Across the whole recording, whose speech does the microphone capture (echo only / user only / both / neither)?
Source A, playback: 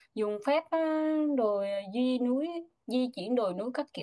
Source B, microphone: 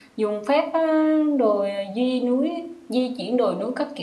echo only